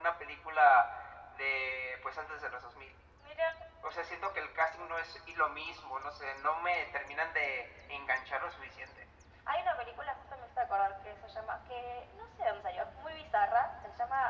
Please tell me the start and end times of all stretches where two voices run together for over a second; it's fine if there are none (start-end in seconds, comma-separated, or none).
none